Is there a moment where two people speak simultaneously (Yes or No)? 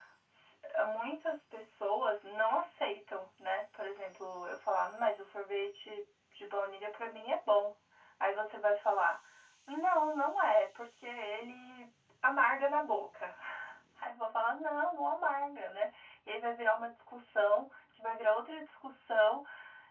No